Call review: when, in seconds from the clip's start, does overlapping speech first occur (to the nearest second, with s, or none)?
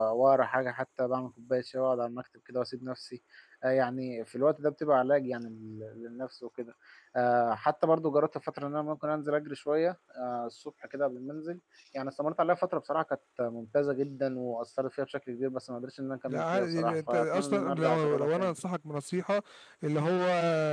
16 s